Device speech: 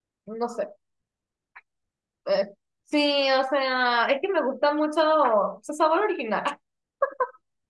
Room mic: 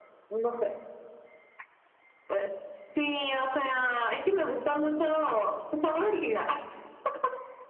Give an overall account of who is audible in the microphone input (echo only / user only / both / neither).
echo only